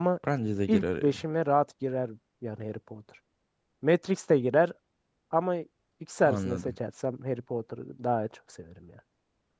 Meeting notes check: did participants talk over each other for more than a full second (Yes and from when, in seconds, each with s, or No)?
No